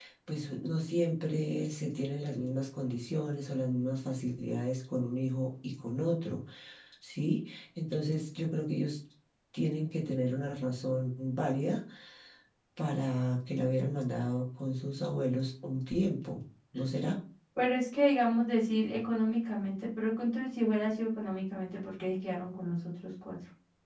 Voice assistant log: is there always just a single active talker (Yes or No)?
Yes